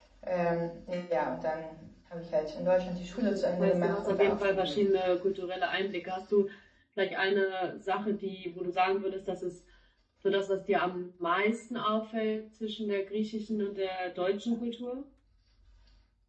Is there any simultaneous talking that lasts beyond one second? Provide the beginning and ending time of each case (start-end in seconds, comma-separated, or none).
3.3-4.8